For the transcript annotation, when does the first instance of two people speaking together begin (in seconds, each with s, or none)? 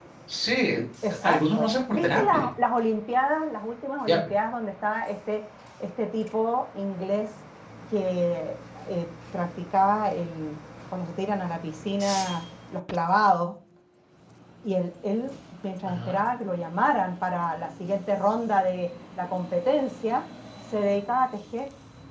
1.1 s